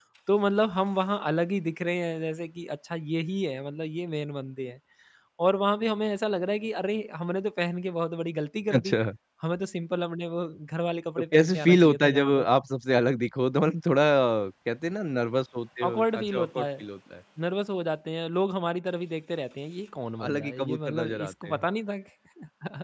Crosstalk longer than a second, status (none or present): present